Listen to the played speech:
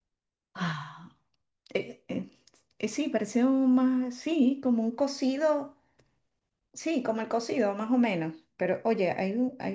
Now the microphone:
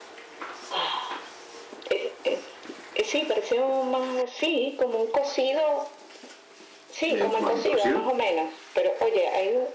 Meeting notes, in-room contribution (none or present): present